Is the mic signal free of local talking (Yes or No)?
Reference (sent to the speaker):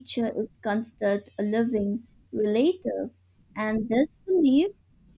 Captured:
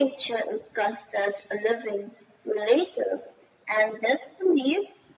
Yes